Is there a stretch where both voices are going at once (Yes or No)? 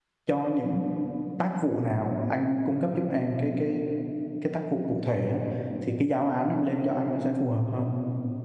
No